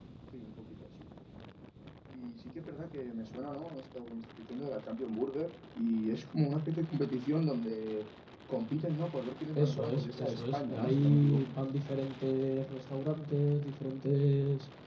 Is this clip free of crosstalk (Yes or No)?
No